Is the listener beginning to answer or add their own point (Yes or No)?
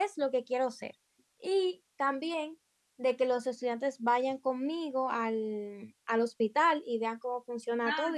Yes